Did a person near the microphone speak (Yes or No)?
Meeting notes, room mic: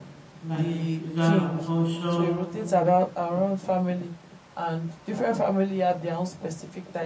Yes